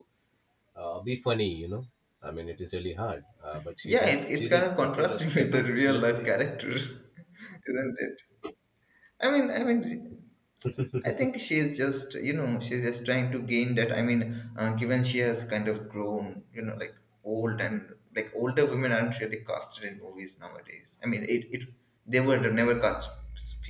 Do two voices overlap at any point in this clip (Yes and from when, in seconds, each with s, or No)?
Yes, from 3.8 s